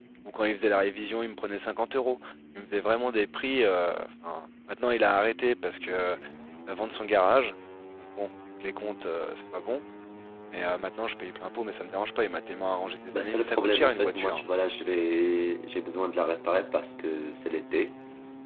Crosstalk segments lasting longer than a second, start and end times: 13.1-14.4

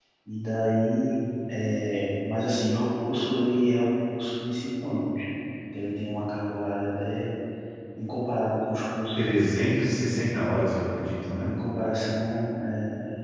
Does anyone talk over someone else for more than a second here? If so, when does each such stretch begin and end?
none

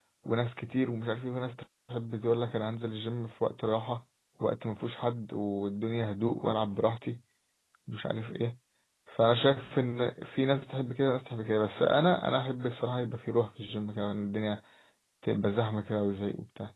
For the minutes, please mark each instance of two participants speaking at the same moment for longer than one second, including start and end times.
none

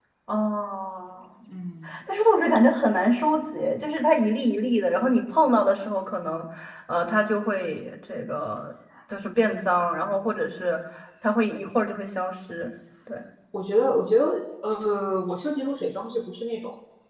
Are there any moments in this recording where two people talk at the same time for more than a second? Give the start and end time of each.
none

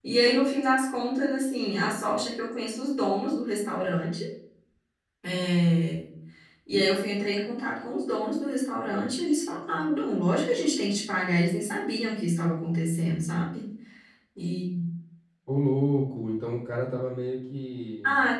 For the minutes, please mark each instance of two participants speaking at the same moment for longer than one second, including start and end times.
none

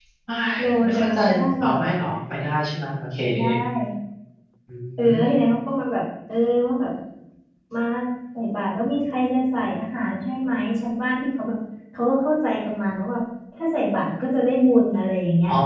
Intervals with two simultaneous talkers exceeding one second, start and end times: 0.6-1.8

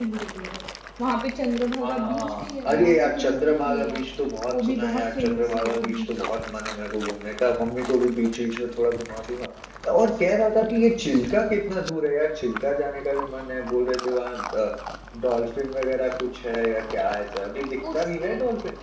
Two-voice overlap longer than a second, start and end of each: 1.8-4.0, 4.5-6.2

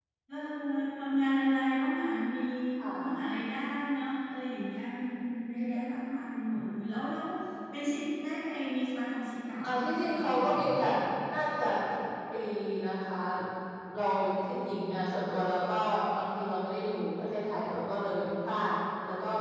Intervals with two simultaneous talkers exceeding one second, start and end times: 9.6-10.8

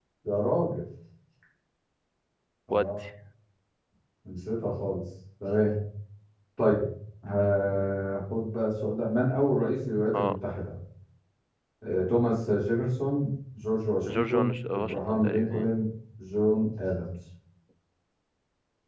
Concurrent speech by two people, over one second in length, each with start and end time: 14.1-15.7

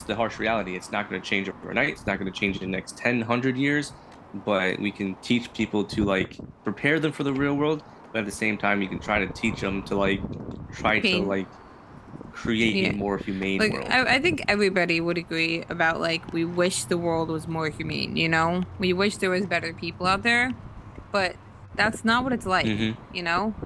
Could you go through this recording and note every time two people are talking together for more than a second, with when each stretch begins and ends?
none

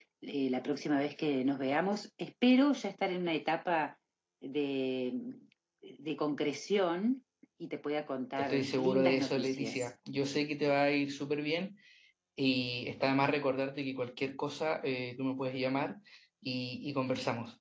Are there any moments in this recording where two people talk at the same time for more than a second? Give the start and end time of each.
8.4-9.8

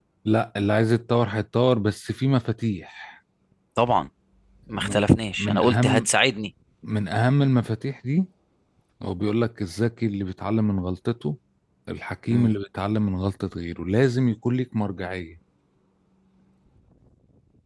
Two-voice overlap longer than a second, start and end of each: 4.8-6.1

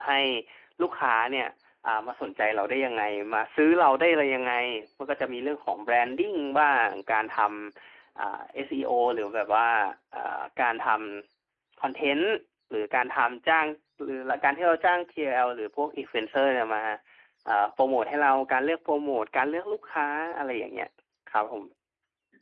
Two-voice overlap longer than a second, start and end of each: none

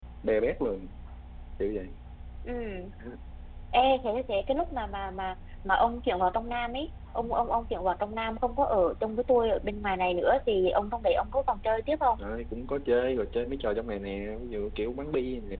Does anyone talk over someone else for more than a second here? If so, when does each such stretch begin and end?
none

